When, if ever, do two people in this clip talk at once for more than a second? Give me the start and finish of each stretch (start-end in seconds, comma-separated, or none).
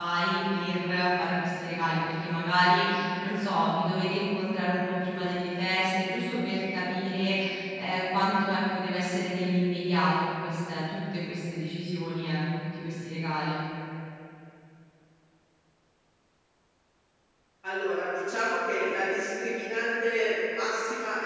none